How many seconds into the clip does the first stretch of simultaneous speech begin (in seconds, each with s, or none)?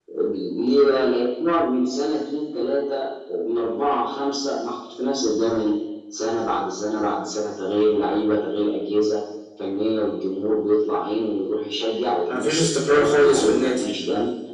12.3 s